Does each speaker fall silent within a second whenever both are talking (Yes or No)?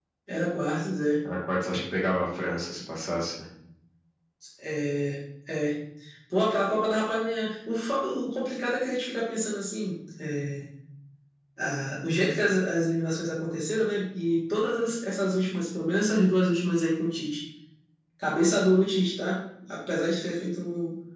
Yes